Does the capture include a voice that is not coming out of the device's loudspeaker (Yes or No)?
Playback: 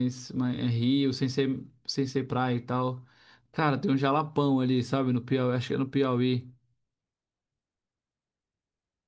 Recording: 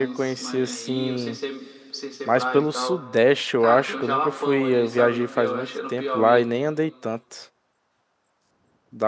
Yes